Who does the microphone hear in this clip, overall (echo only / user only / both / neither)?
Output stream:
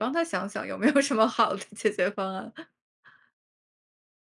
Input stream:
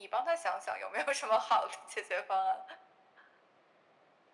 echo only